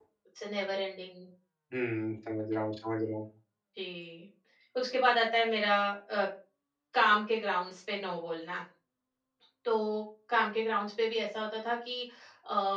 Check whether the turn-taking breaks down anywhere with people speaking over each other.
No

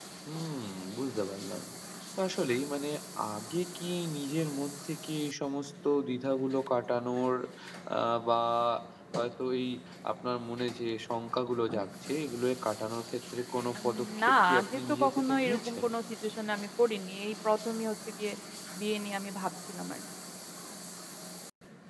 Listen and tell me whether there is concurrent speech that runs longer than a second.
Yes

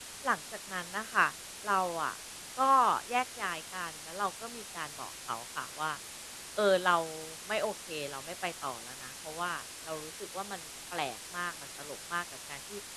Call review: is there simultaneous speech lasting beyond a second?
No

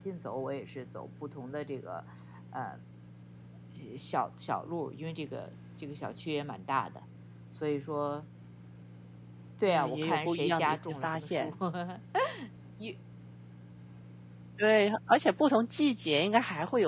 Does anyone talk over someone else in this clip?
Yes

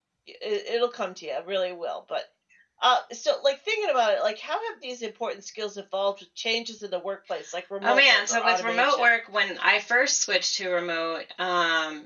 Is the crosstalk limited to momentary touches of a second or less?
No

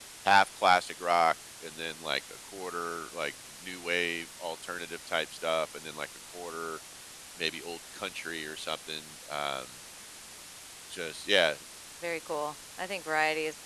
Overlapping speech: No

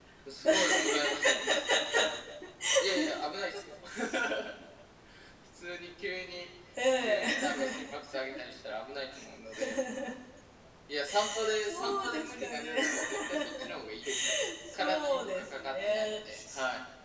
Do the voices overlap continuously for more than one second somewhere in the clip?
Yes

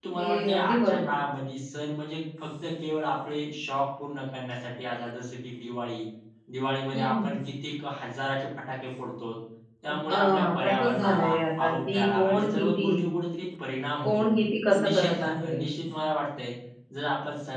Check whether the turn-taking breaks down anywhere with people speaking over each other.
Yes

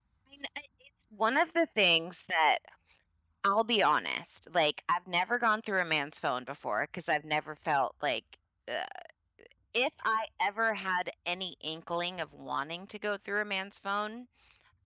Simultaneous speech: No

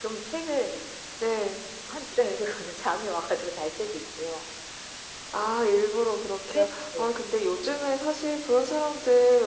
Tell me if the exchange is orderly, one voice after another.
Yes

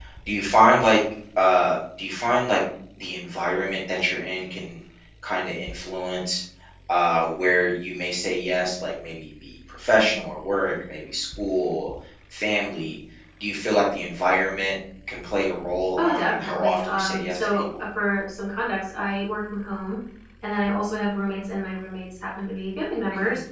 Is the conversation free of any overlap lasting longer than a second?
No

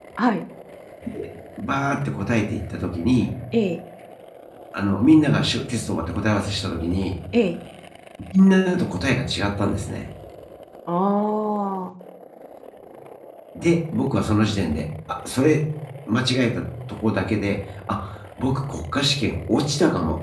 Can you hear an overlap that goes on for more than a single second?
No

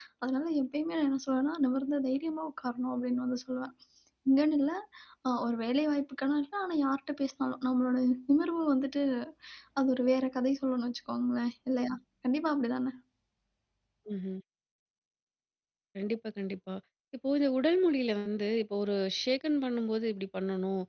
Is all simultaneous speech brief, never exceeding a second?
Yes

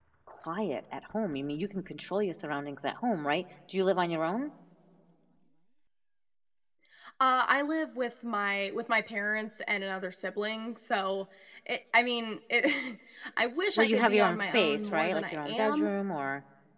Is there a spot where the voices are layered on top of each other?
Yes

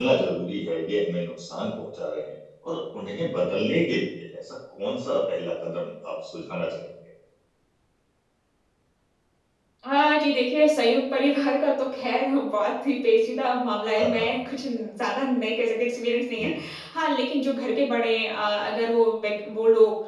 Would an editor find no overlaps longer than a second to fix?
Yes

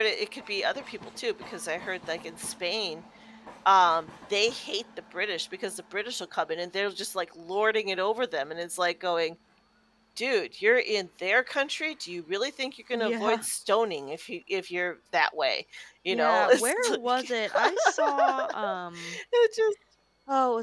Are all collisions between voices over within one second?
No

